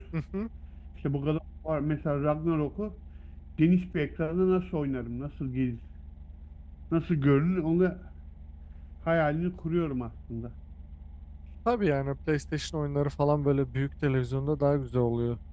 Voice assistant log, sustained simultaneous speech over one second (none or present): none